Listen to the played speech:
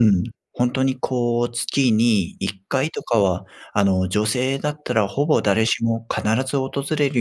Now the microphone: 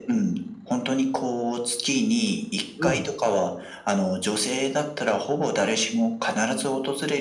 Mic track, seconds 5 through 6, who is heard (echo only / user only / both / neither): echo only